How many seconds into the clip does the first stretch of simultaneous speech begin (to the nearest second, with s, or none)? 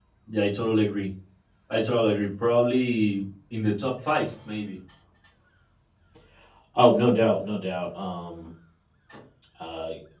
none